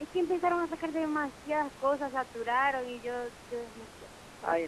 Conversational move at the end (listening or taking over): taking over